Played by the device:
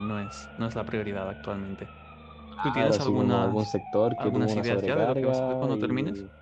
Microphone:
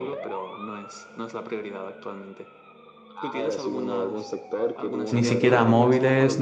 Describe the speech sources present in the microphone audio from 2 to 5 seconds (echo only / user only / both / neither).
echo only